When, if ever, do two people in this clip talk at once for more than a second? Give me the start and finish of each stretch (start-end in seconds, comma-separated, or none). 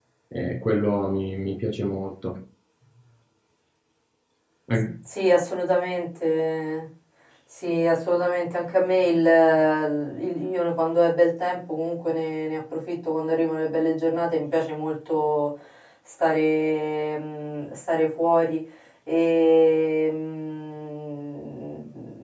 none